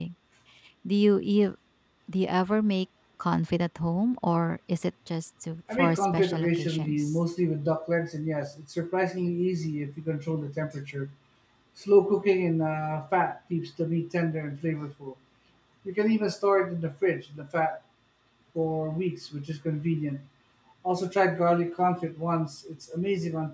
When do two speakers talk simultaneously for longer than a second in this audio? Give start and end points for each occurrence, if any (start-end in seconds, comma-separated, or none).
5.7-7.1